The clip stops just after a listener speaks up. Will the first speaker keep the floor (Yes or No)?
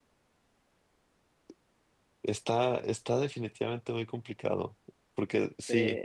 Yes